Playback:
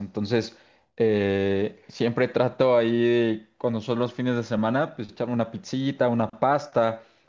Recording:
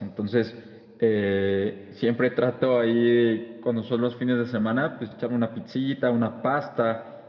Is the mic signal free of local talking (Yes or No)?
Yes